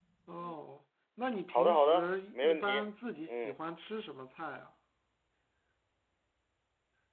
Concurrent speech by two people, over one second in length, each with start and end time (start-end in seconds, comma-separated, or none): 1.5-2.8